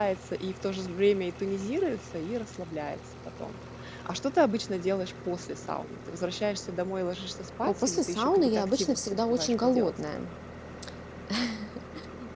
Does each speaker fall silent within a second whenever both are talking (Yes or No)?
No